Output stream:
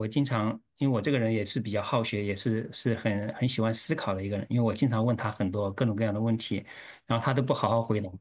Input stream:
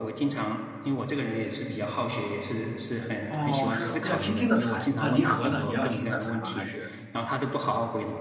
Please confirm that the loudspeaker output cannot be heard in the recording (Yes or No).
No